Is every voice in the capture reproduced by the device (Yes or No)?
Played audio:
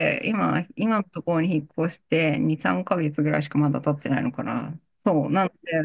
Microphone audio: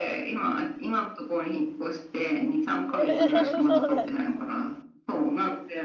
No